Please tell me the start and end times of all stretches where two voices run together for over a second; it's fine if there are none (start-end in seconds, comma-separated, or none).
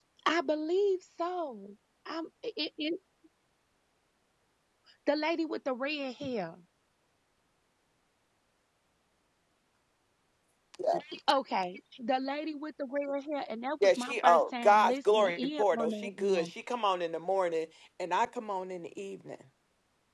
13.8-16.5